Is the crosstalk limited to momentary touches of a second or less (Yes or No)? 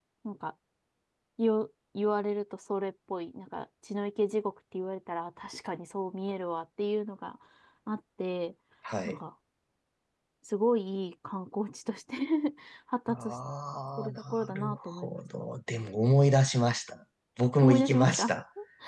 No